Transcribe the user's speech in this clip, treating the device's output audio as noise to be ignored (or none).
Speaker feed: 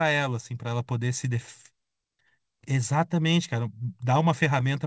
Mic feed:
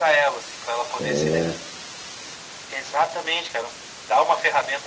É,